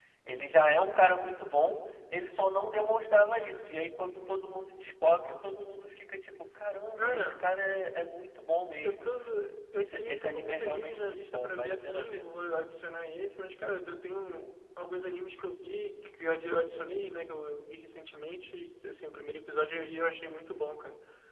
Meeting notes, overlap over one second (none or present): present